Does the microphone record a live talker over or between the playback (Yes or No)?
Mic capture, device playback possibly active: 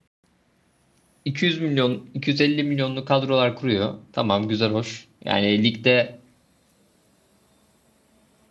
Yes